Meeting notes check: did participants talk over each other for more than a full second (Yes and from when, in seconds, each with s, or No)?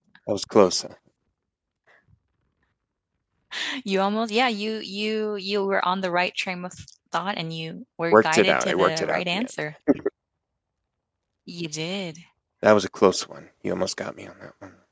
Yes, from 8.1 s